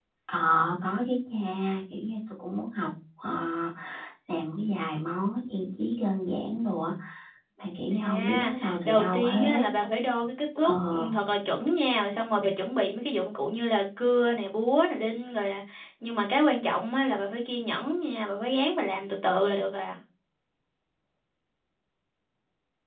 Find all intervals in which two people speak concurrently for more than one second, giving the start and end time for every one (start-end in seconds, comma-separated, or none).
7.9-9.7